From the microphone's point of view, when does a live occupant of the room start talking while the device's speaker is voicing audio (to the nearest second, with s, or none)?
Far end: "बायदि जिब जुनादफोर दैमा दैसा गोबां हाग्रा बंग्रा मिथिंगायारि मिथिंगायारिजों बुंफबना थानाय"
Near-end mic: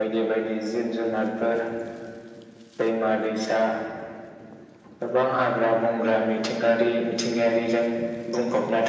none